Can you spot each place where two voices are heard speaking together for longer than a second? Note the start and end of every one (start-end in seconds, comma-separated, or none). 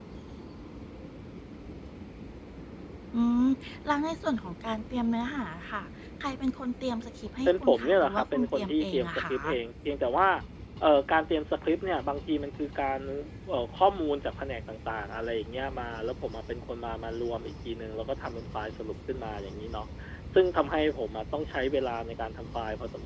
7.5-9.4